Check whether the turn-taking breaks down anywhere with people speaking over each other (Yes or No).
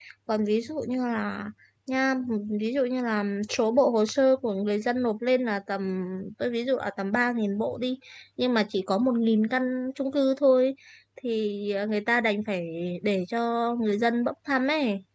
No